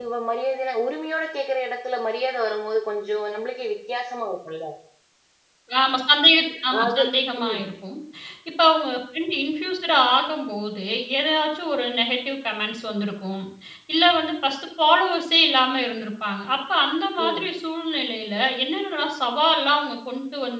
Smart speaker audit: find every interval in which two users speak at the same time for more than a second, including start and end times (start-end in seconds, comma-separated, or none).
none